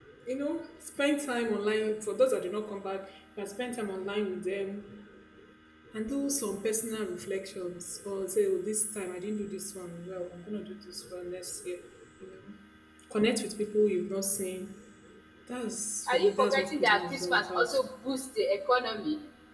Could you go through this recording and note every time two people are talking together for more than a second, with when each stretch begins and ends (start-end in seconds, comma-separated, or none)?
16.1-17.8